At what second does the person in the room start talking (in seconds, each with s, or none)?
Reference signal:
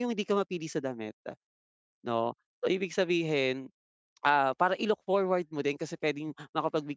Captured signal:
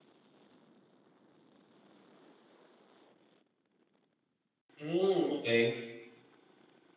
4.8 s